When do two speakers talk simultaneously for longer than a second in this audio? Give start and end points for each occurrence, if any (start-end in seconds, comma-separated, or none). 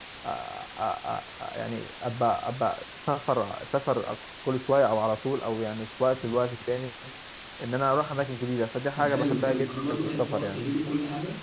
9.0-10.6